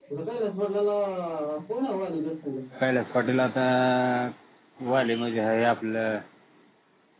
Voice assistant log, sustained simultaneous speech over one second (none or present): none